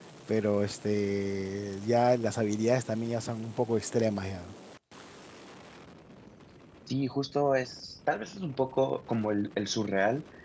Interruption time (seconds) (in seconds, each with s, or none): none